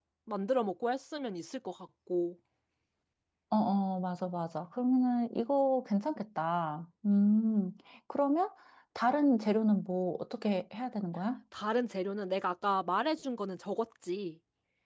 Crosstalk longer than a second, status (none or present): none